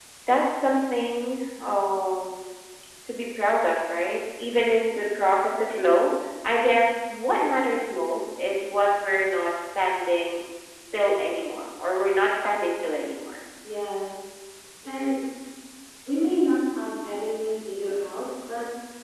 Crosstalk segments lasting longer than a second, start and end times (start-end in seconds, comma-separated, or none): none